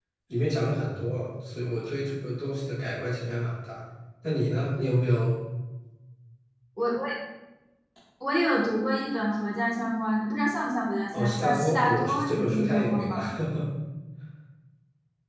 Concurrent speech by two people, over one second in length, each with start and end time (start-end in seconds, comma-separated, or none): 11.1-13.2